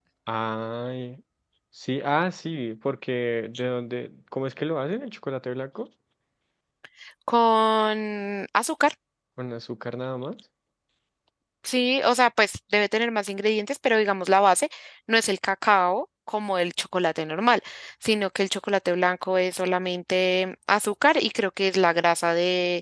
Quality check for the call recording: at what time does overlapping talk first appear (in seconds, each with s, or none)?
none